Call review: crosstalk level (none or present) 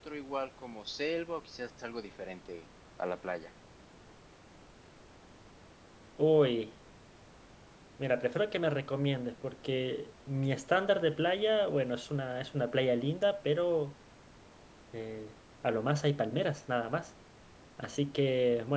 none